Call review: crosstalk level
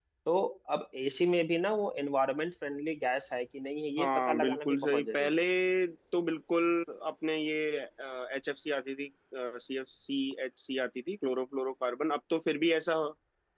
present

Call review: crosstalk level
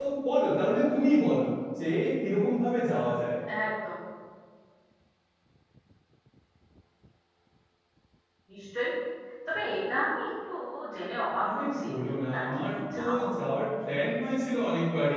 present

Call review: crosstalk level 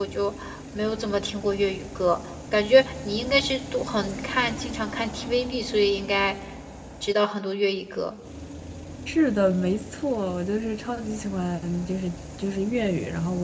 none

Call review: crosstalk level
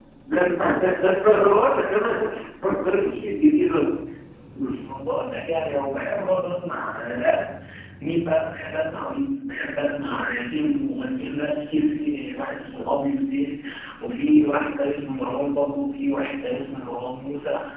none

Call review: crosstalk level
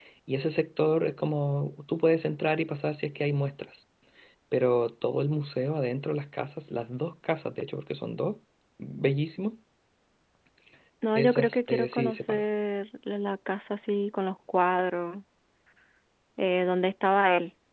present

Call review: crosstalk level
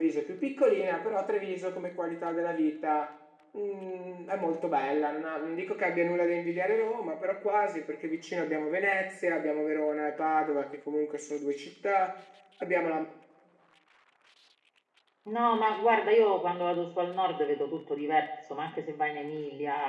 none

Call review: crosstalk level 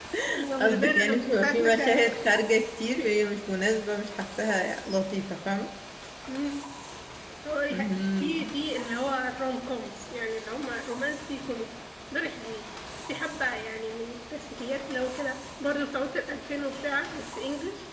present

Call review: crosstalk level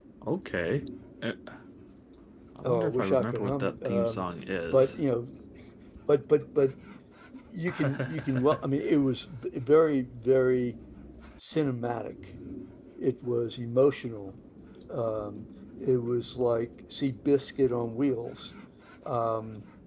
present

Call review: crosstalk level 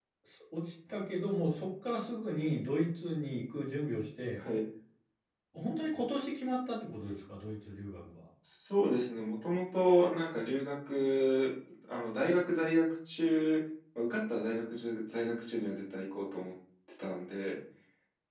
none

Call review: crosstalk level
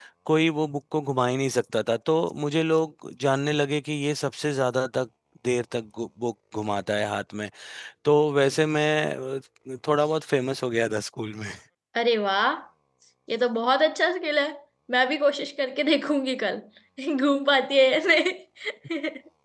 none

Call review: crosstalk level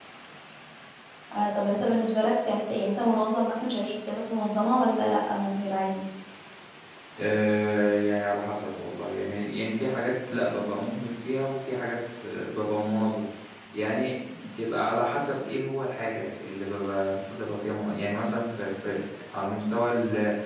none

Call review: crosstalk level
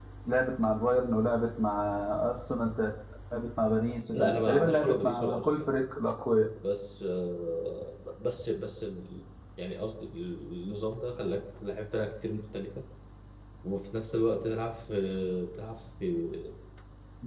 present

